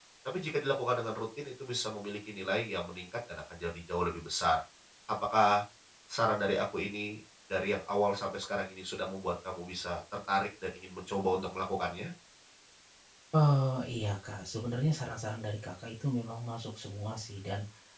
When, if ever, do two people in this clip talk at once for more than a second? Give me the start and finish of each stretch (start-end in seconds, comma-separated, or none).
none